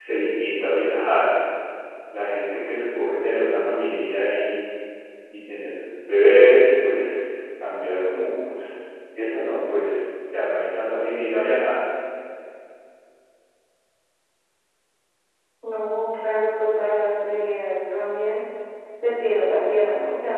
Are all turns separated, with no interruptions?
Yes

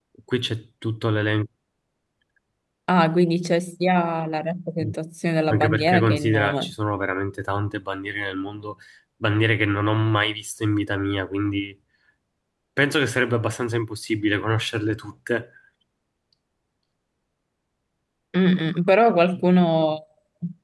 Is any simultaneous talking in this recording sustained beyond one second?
Yes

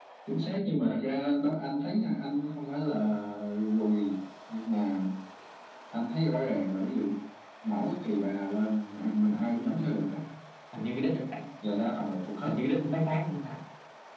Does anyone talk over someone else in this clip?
No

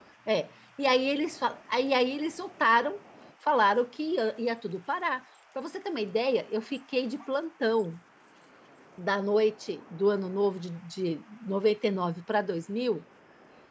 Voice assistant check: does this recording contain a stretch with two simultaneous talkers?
No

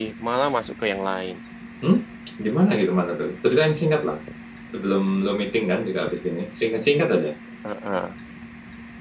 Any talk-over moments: No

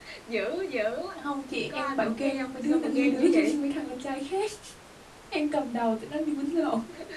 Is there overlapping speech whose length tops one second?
Yes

